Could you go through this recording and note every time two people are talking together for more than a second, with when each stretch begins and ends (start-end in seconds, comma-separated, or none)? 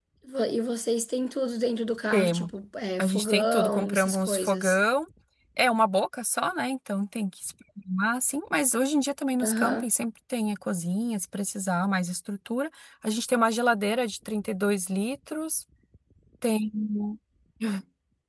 3.0-4.8